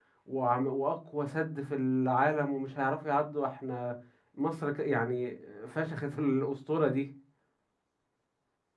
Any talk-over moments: No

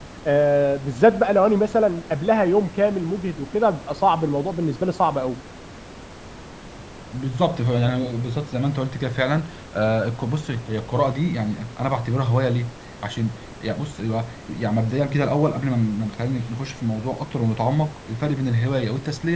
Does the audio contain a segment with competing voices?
No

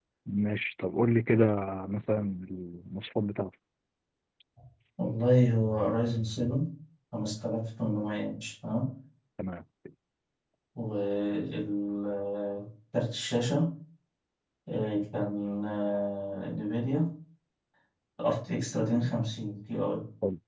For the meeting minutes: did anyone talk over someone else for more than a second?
No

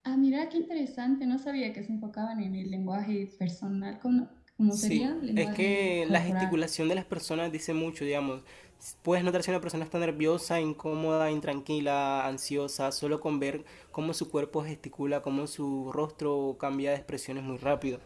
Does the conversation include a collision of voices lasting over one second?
Yes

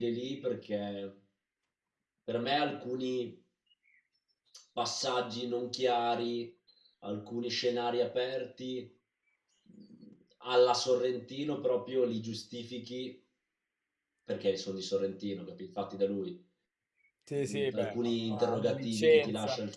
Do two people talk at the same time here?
Yes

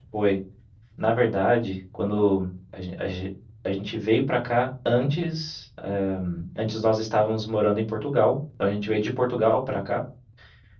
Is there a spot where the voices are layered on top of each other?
No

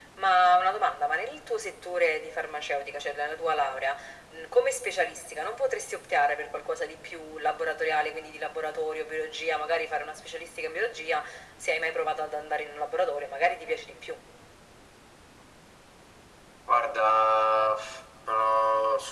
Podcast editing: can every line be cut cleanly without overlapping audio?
Yes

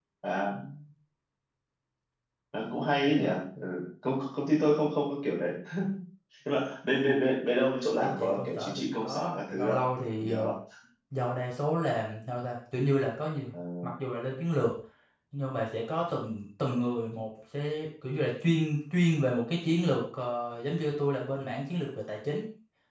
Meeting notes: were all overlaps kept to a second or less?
No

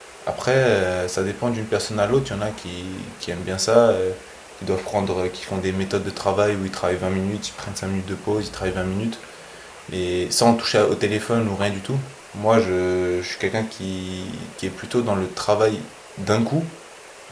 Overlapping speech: No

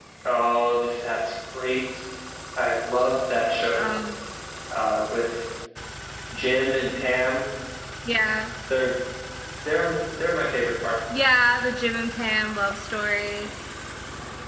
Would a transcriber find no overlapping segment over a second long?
Yes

